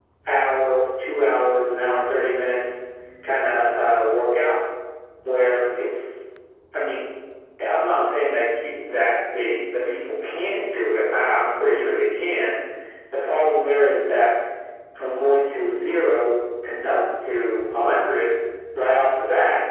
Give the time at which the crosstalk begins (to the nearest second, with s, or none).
none